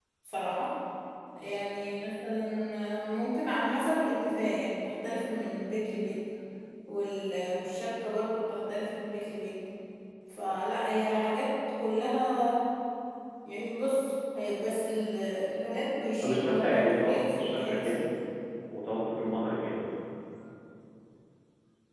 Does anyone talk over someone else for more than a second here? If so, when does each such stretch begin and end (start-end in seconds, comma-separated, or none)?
16.2-17.9